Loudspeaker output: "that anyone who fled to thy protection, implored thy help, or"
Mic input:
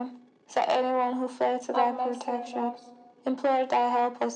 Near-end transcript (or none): have mercy on us,